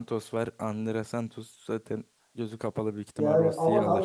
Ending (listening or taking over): taking over